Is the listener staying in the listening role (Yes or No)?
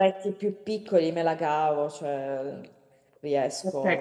No